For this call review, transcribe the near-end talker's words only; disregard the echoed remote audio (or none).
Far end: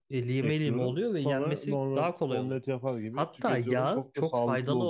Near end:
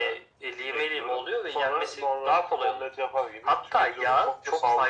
none